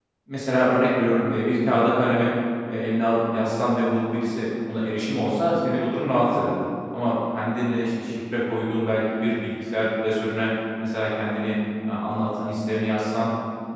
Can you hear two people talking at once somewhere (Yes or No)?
No